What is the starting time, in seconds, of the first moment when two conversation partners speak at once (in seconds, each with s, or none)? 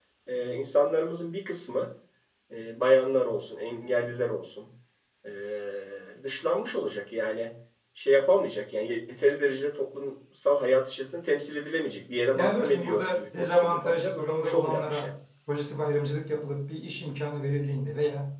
12.3 s